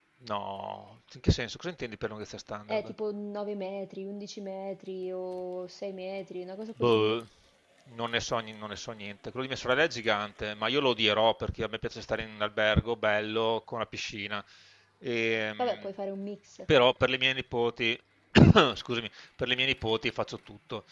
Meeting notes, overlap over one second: none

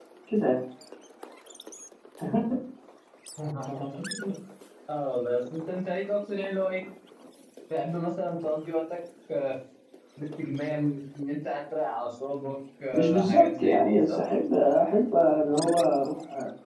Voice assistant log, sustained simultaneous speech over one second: present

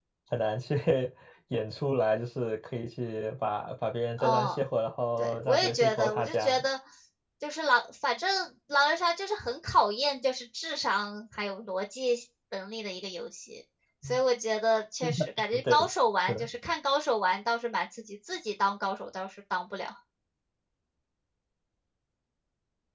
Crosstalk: present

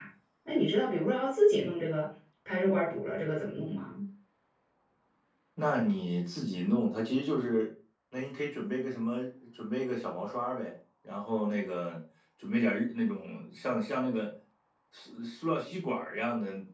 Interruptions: none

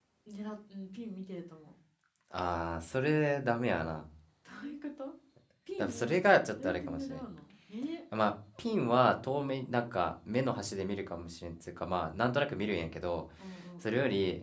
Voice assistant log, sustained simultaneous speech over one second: present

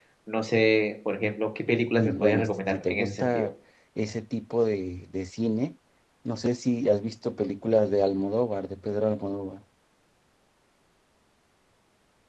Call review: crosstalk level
present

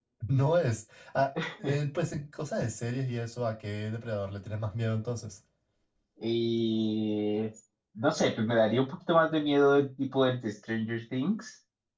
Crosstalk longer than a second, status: none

